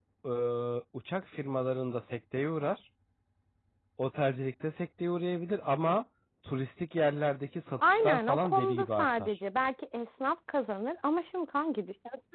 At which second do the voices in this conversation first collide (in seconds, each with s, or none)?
7.8 s